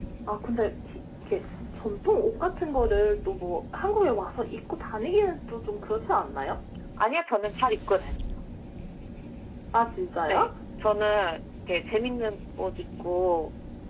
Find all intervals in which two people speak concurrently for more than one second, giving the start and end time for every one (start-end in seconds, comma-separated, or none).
none